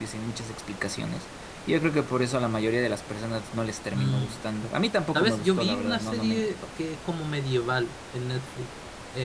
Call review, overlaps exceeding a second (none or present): present